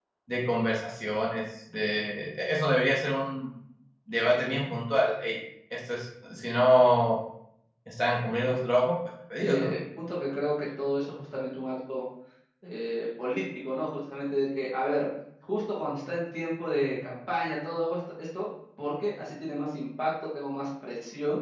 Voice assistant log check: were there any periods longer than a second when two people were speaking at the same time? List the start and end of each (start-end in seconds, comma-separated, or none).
none